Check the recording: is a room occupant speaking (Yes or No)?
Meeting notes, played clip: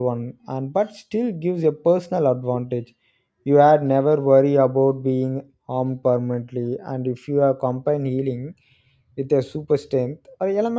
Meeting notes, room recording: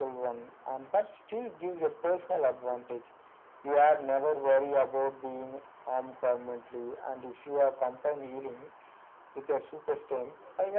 No